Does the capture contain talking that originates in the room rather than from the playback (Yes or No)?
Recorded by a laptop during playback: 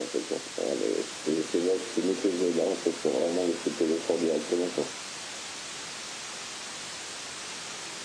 No